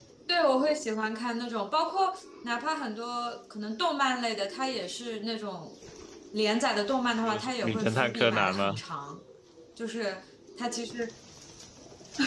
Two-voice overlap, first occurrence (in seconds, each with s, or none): 7.2 s